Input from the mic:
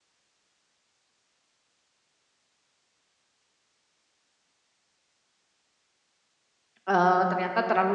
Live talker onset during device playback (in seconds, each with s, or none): 6.9 s